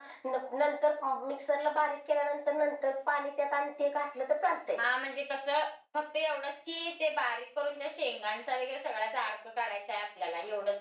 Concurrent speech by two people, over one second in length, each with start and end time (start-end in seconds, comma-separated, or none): none